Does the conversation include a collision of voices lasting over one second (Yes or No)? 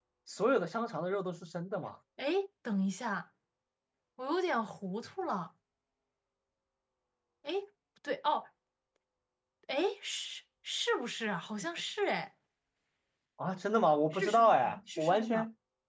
Yes